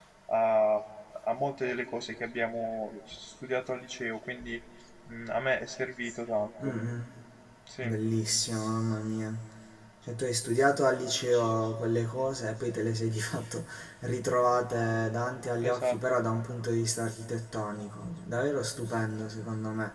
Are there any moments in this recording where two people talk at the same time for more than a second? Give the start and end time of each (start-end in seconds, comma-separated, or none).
none